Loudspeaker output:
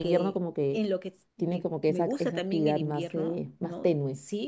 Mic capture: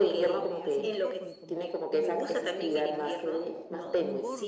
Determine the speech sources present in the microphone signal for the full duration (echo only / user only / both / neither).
both